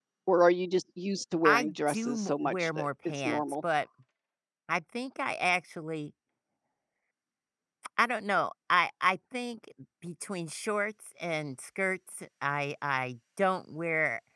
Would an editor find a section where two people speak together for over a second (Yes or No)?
Yes